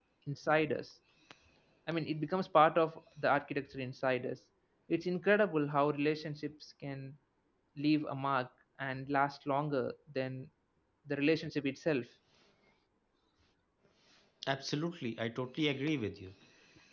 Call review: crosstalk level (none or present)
none